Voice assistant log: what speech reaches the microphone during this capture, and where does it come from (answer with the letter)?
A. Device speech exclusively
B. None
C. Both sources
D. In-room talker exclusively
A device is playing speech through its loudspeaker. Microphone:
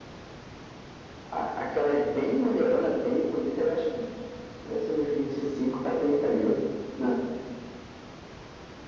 A